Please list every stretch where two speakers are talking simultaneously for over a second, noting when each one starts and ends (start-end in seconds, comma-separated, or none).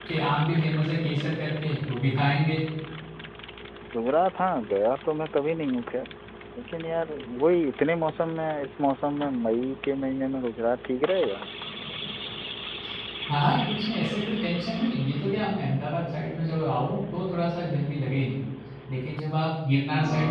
none